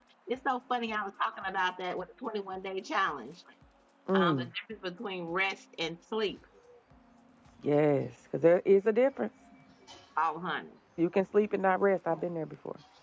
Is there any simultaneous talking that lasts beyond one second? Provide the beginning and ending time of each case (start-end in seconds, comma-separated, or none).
none